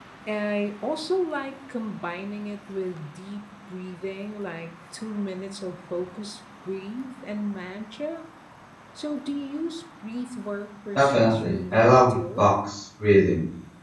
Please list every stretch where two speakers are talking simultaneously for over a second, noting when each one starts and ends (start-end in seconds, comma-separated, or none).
11.0-12.4